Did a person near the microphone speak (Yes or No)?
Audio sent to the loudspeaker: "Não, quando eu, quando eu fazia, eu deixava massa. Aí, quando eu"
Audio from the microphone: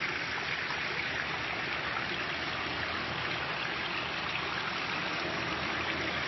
No